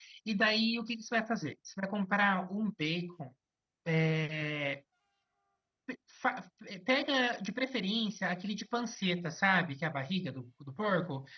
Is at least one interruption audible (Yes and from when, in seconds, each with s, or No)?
No